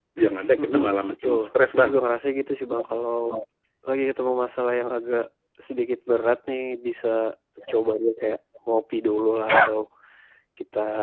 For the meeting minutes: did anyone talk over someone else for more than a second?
Yes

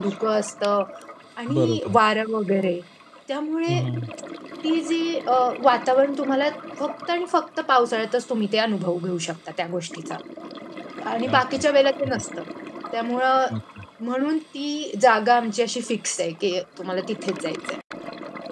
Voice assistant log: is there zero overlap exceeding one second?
Yes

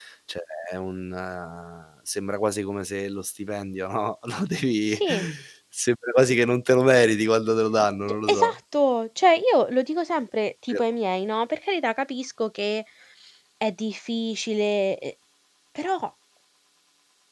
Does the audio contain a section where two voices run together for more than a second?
No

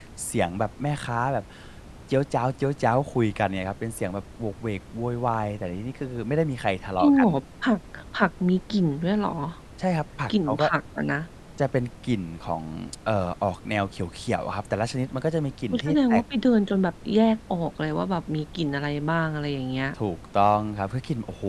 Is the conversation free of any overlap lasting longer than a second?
Yes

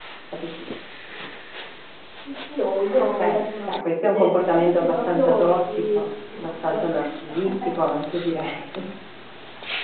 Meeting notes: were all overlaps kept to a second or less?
No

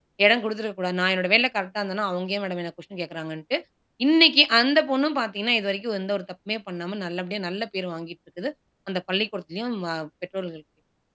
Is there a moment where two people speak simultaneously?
No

